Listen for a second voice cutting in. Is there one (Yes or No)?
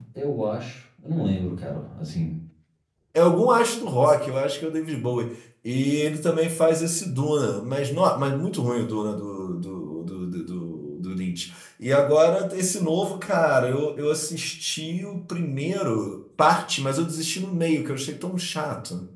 No